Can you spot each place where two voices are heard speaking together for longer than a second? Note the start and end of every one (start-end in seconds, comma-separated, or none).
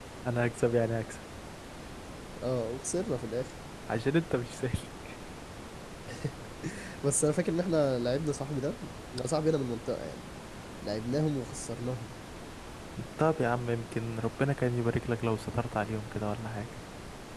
none